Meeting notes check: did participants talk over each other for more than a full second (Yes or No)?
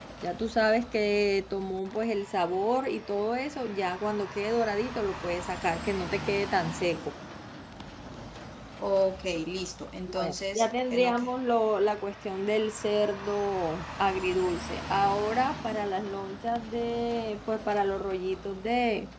Yes